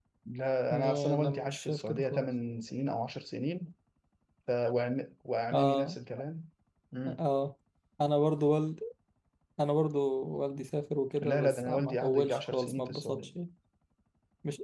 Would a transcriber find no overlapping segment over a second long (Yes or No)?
No